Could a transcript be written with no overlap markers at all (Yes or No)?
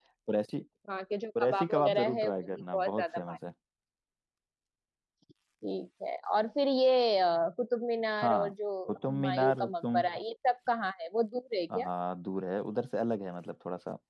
No